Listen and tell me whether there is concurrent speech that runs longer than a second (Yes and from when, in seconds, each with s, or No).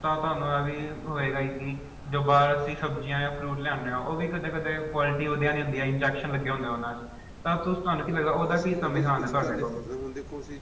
Yes, from 8.4 s